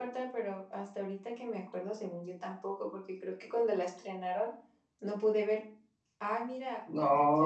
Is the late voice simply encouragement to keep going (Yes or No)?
No